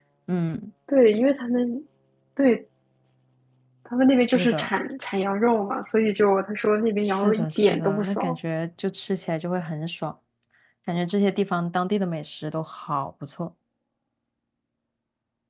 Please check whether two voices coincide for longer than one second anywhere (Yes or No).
Yes